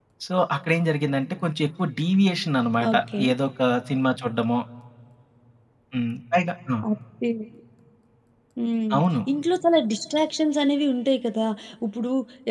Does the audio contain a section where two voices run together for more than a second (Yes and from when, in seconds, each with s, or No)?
No